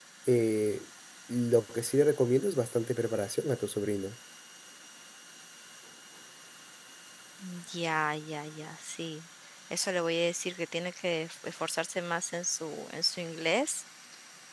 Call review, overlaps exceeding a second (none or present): none